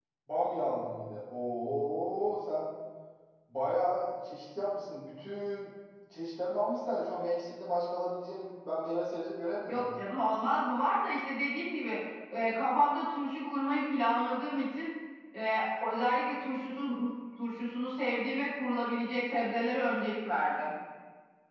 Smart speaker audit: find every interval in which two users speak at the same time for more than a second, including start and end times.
none

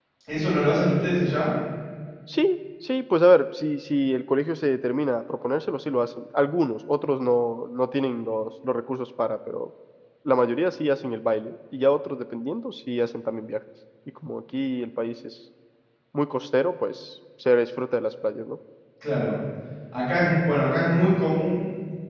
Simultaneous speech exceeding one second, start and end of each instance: none

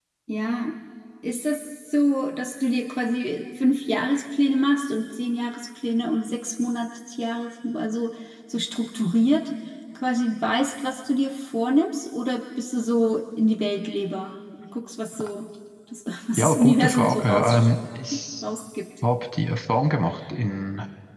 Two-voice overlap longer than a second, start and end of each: 16.4-17.7

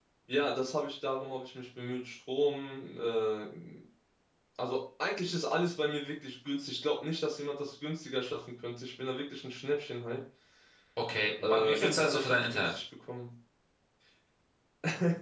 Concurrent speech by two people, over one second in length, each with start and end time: 11.4-12.8

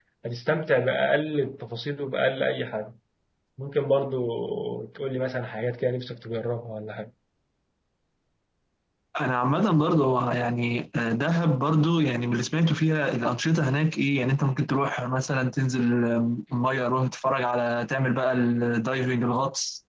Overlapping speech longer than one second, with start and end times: none

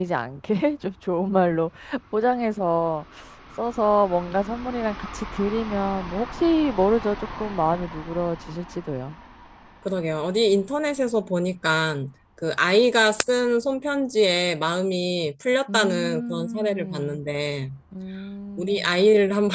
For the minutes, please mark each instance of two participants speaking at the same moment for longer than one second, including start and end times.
15.7-17.2

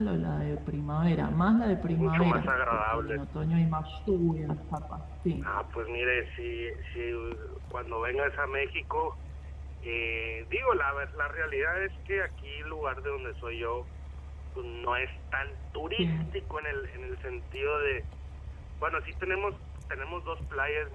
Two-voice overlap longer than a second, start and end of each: 1.9-3.2

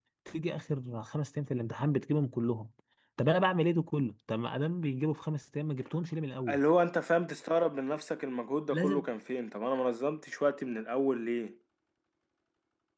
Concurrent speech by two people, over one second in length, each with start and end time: none

